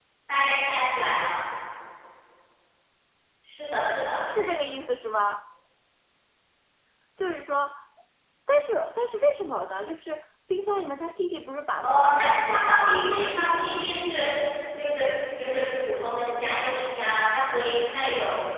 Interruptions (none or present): present